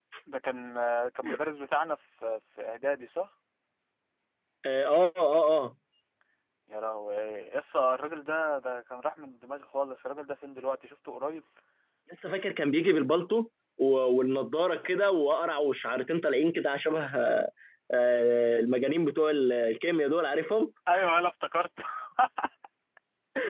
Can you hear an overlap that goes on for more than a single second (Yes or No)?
No